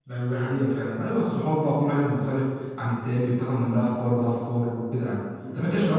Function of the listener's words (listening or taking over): listening